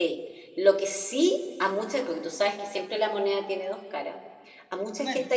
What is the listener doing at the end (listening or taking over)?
listening